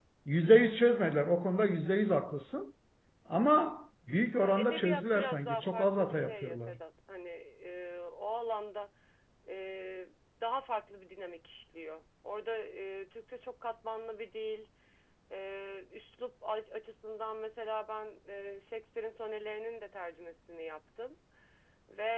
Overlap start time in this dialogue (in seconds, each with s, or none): 4.4 s